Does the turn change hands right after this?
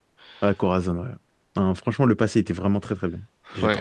Yes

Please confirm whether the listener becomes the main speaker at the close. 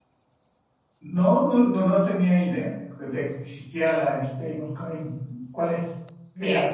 Yes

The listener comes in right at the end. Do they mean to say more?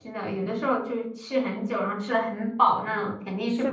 Yes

